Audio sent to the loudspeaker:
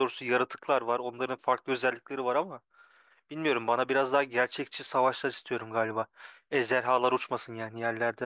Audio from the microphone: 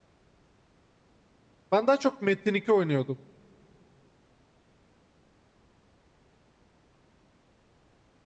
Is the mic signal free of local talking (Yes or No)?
No